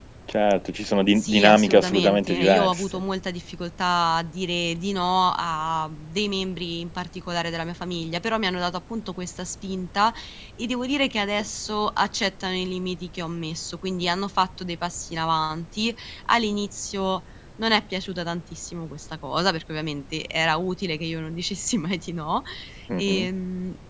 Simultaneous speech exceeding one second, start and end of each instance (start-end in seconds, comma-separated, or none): 1.1-3.0